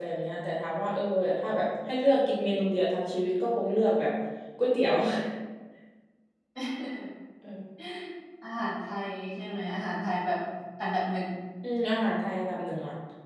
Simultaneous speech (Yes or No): No